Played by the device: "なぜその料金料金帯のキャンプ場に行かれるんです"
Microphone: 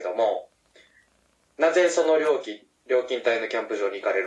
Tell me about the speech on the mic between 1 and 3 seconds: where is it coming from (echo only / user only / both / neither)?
echo only